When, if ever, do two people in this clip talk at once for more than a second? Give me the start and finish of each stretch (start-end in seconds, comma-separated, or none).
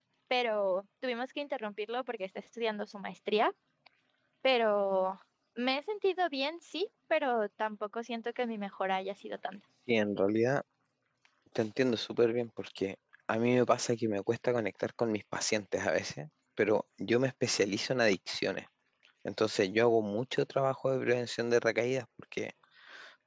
none